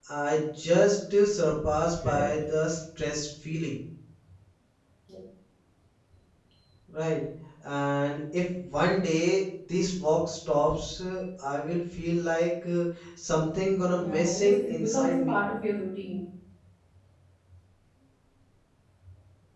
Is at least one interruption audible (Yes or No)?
Yes